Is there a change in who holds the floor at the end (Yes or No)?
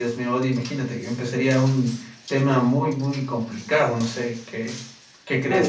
Yes